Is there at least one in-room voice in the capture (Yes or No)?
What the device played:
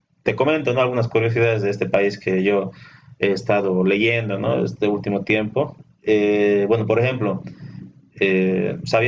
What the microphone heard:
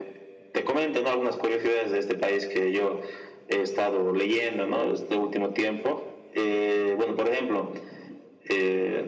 No